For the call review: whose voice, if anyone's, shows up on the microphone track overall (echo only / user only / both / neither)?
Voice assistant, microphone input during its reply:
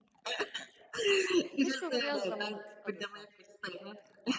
both